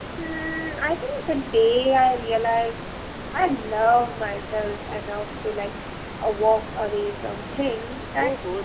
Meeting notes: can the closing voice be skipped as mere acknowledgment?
No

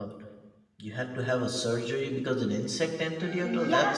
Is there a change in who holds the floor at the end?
Yes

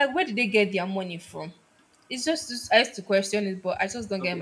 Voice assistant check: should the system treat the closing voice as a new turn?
Yes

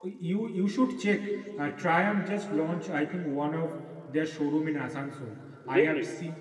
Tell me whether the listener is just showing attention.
Yes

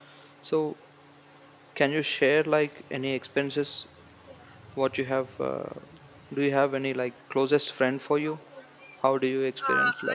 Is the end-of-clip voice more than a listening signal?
Yes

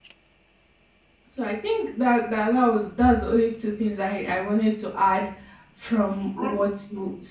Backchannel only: Yes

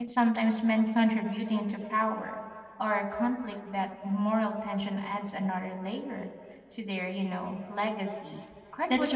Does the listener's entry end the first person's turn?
Yes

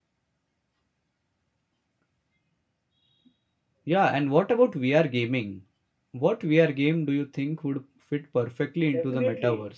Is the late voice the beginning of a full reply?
Yes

